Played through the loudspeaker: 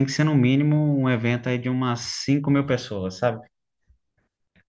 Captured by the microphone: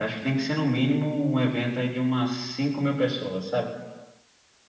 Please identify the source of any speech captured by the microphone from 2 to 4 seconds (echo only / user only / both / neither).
echo only